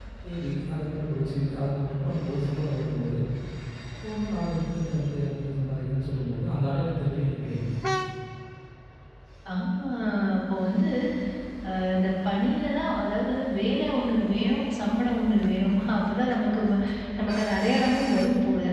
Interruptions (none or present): none